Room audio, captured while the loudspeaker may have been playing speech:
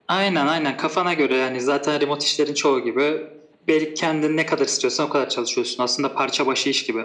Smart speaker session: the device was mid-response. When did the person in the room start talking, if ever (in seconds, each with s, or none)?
none